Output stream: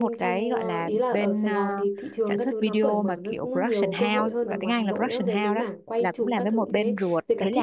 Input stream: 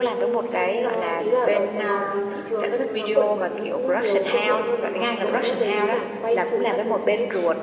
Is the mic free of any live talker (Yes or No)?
Yes